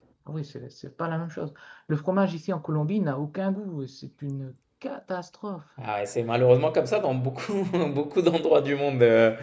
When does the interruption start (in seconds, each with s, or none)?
none